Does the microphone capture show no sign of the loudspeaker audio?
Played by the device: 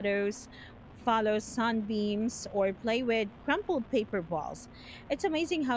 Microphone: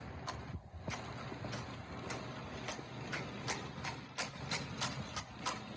Yes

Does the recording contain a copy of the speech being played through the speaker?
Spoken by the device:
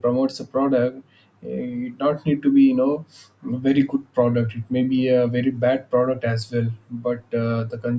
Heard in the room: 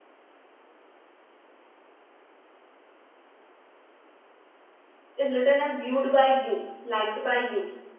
No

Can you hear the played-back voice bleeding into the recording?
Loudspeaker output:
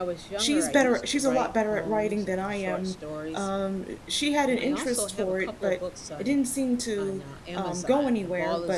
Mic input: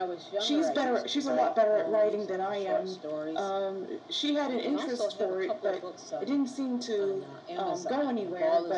Yes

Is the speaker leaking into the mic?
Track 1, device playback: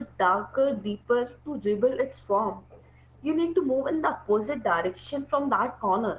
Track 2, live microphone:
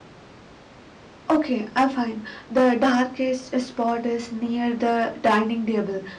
No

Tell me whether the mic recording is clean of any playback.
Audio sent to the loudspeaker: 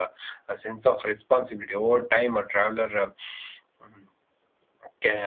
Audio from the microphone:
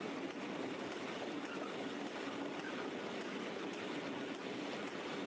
Yes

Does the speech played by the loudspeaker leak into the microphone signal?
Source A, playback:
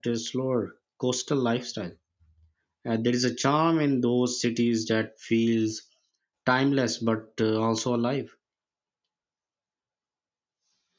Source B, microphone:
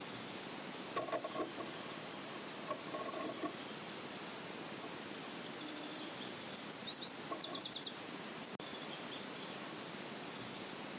No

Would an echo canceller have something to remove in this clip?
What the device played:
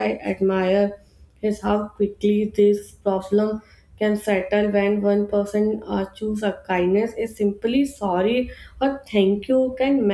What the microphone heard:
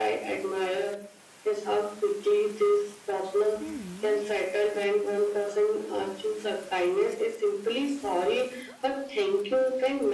Yes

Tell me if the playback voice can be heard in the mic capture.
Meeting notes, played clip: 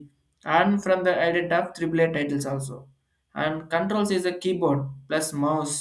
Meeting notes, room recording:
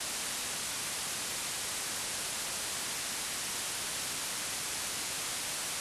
No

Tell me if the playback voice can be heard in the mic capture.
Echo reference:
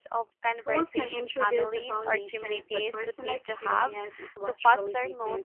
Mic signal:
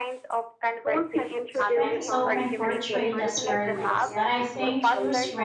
Yes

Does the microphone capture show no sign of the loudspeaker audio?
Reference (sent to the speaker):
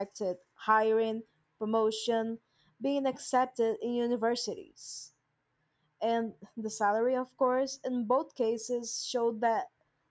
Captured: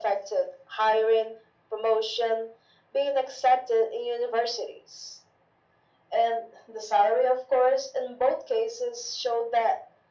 No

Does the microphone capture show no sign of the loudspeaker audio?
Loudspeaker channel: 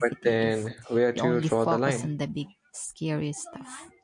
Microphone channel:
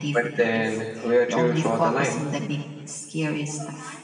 No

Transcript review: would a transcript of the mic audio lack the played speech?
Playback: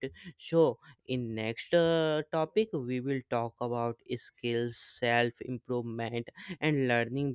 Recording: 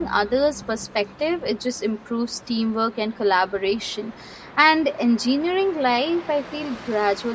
Yes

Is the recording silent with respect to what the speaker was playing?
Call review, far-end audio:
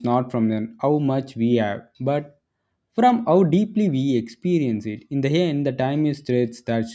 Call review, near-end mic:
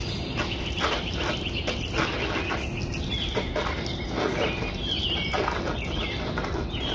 Yes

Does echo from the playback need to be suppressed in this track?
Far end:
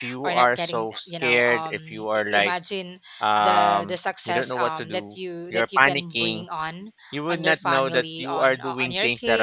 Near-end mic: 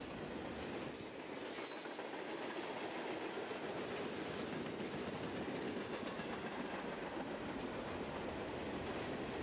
No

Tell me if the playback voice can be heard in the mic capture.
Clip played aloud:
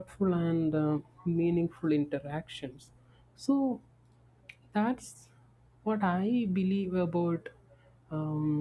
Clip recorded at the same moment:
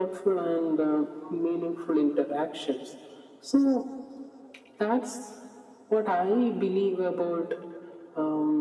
Yes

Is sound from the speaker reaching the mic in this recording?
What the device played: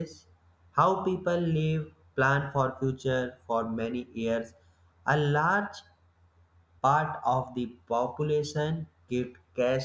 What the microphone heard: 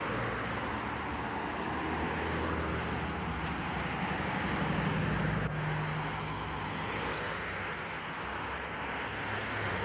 No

